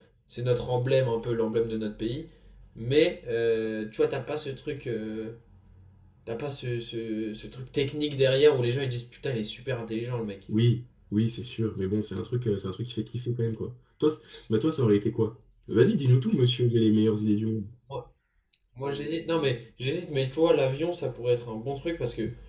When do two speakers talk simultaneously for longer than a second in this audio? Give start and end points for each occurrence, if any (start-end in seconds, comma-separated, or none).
none